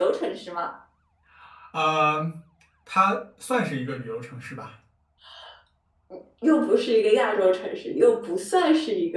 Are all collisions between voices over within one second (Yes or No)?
Yes